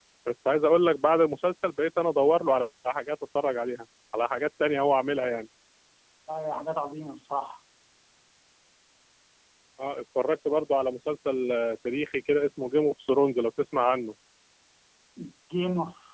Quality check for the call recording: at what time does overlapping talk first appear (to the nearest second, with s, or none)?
none